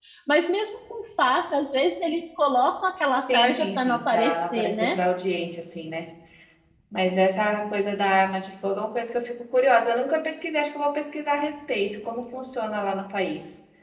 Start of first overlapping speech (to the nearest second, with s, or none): 3 s